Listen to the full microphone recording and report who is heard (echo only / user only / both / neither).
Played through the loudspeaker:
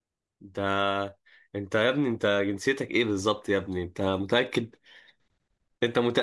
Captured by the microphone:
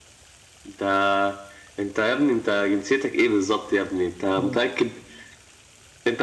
both